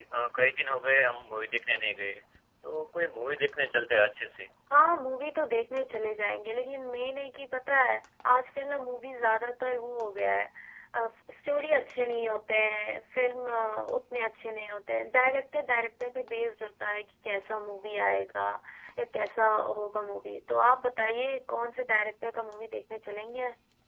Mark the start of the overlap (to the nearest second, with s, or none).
none